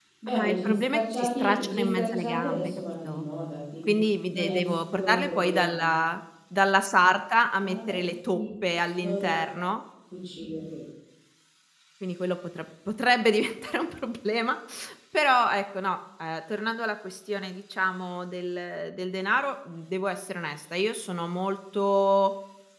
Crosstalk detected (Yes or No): Yes